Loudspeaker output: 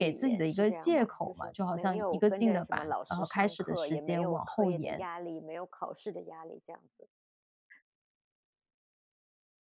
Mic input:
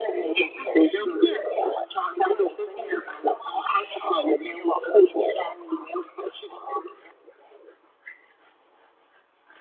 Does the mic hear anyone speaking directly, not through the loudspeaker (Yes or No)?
No